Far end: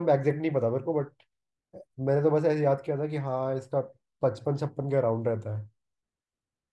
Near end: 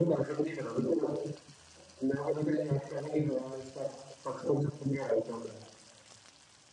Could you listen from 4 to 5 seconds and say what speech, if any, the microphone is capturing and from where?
echo only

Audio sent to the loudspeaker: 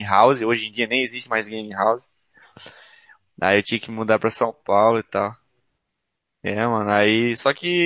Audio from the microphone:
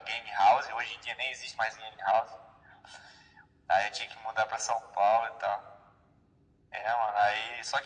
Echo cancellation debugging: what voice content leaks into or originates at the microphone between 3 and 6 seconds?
echo only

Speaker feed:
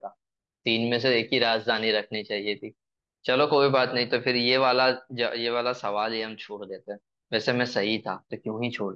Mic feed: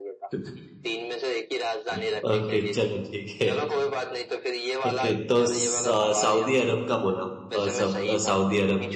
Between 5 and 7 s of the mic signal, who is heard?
both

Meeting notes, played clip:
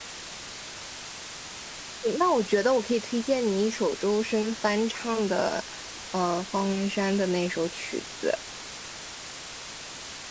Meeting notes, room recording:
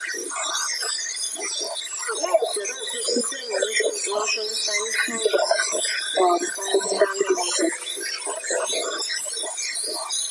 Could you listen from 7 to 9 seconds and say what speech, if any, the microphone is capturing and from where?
echo only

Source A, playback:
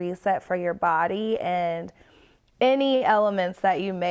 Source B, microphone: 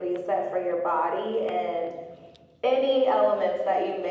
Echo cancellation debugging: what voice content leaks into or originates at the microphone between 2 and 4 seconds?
echo only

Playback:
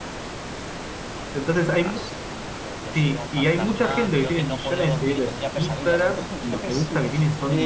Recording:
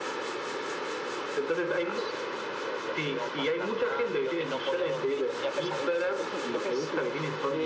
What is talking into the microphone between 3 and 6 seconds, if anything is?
echo only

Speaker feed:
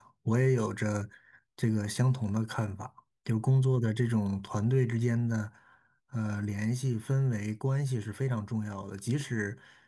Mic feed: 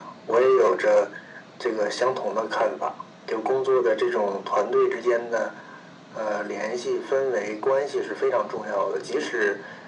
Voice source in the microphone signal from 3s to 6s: echo only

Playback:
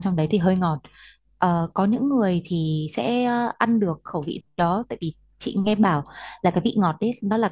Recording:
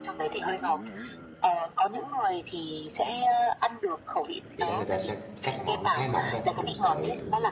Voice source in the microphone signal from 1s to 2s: echo only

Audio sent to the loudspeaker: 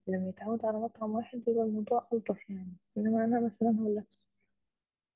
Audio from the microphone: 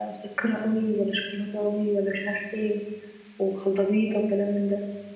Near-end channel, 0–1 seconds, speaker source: user only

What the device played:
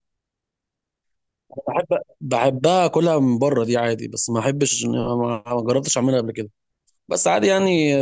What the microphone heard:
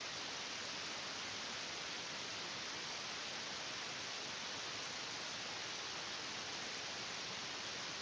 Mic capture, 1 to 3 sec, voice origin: neither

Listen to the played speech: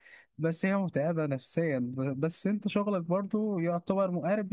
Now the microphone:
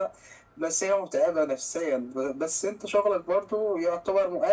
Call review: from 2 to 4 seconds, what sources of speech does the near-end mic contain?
echo only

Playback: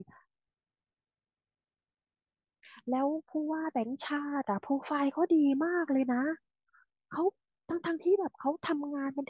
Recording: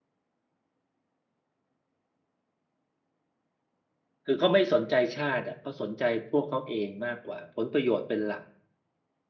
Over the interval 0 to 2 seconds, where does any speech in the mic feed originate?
neither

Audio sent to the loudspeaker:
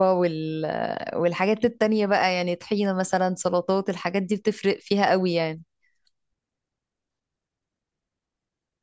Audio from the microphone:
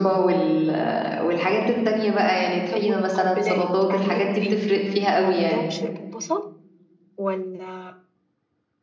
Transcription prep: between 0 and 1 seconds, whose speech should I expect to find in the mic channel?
echo only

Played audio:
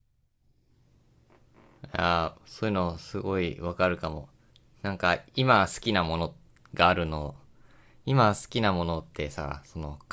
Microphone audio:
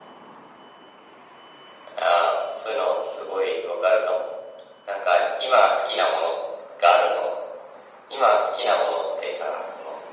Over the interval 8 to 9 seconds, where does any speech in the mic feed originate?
echo only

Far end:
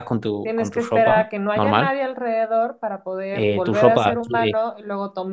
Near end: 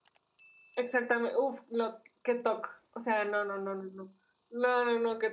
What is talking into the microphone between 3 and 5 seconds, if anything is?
user only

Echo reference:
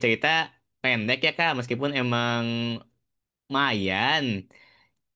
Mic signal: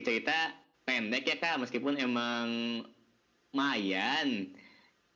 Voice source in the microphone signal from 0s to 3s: echo only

